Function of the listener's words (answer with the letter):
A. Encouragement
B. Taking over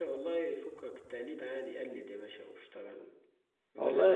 A